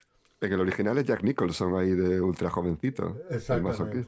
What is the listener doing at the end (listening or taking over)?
taking over